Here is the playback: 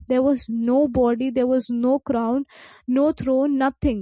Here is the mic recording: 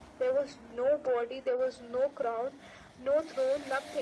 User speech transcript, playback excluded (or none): none